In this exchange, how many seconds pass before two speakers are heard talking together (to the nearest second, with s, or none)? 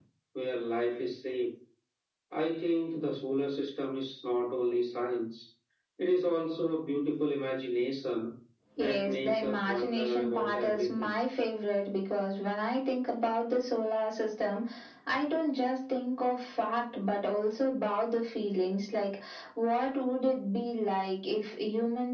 9 s